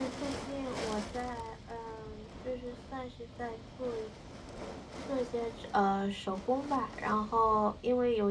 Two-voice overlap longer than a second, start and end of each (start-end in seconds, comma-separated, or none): none